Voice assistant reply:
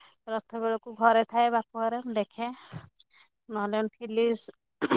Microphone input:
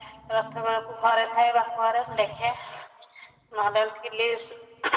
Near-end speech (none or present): none